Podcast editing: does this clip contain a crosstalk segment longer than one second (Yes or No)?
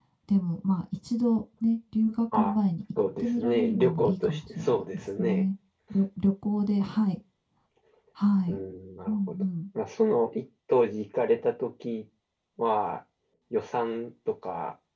Yes